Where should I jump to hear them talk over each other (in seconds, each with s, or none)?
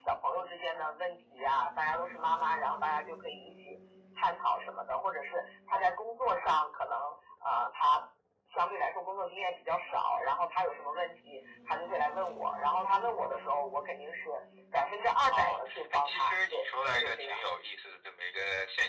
15.3 s